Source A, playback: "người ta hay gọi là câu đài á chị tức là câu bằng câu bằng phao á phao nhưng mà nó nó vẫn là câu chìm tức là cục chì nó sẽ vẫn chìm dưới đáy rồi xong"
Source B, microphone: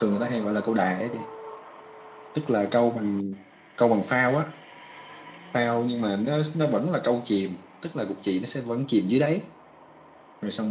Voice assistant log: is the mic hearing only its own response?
Yes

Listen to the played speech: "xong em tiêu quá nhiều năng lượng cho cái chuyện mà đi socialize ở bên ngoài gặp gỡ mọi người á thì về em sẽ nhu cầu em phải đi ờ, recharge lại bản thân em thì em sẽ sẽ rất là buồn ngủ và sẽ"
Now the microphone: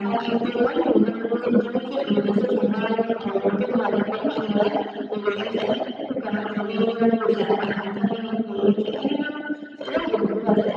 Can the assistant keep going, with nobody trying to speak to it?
Yes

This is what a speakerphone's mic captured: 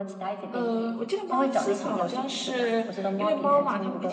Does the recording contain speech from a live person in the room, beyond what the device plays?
Yes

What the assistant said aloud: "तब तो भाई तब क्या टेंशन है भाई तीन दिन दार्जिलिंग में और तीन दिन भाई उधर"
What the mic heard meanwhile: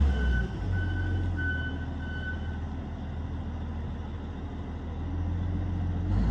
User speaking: No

